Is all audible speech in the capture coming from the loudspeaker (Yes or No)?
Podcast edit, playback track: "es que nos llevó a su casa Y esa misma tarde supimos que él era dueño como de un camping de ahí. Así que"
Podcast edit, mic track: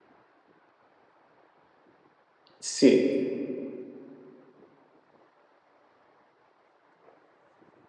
No